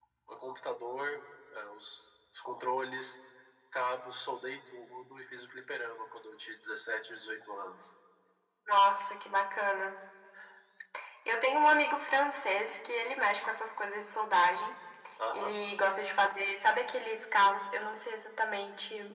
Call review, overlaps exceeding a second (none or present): none